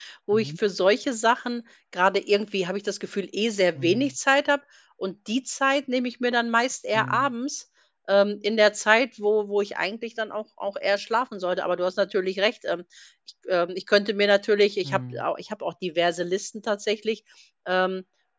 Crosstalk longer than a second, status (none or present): none